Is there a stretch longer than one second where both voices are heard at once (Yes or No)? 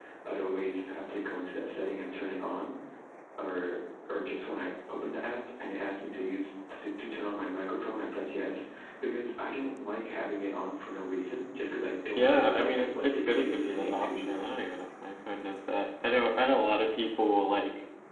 Yes